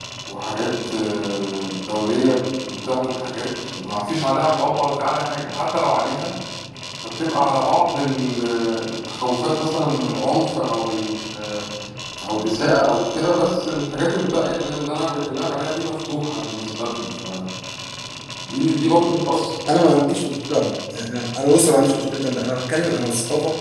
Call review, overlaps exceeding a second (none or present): none